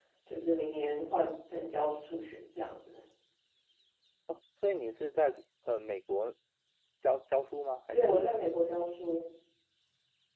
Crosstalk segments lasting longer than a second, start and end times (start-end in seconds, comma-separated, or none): none